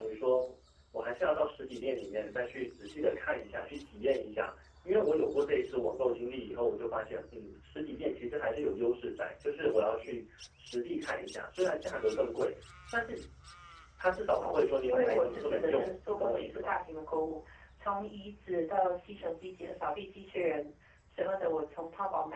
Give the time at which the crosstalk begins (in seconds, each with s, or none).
14.4 s